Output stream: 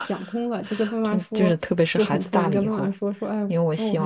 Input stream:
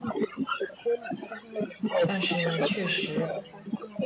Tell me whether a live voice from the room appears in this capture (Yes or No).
Yes